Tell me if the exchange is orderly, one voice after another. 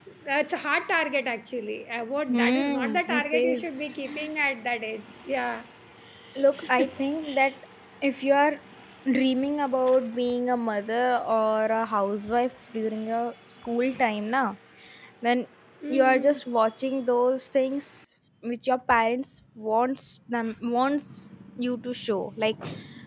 No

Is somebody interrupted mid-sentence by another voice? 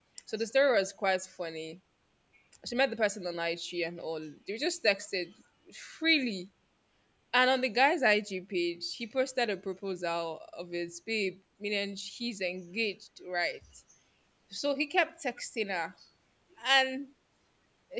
No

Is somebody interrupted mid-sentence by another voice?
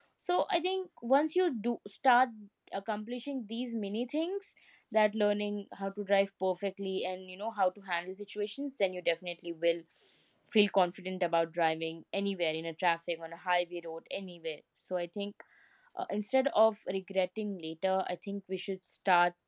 No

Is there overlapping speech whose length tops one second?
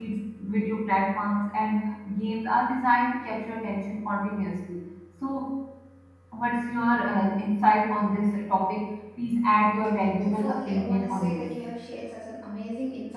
Yes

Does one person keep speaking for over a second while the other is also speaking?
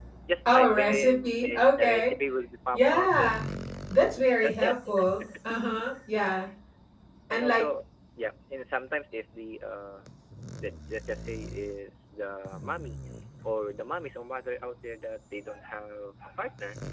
Yes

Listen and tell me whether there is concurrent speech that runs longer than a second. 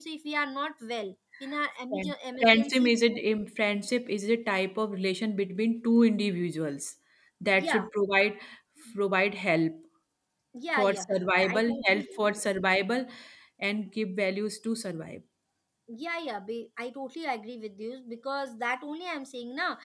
Yes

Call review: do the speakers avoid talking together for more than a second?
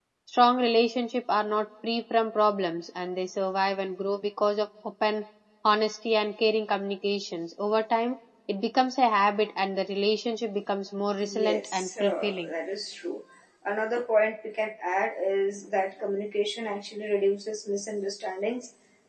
No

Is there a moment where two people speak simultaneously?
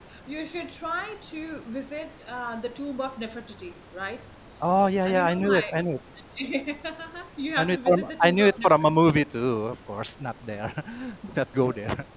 Yes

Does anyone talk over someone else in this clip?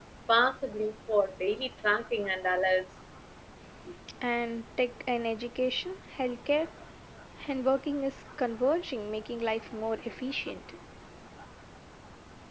No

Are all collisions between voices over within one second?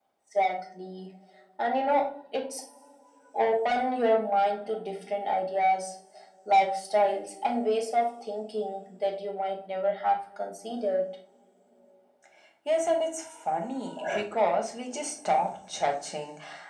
Yes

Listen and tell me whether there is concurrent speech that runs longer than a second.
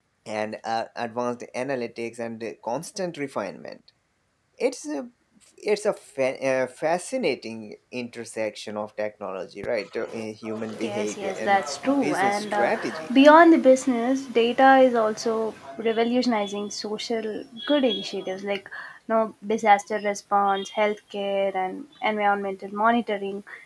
Yes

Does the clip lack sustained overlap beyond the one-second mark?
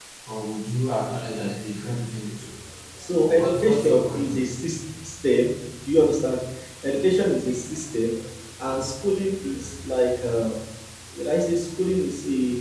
No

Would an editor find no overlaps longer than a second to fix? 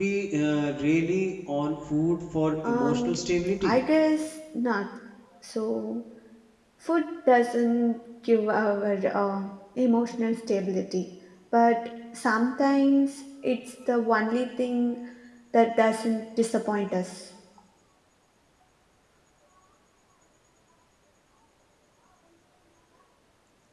Yes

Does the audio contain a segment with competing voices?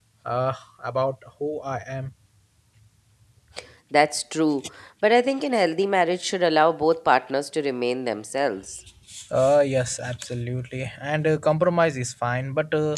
No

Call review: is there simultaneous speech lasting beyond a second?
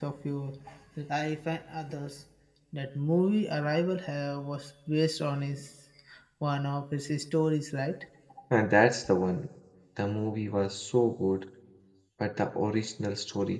No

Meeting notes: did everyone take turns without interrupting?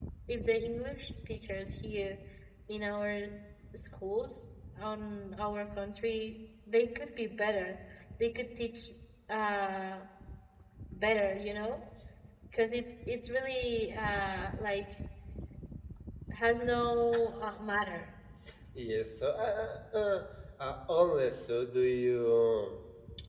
Yes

